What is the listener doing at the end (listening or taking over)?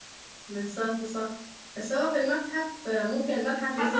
taking over